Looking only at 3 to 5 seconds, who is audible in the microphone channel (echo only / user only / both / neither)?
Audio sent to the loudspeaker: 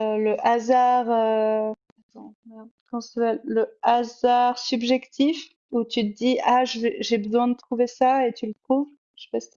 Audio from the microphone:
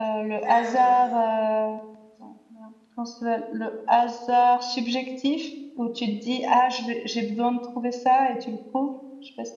echo only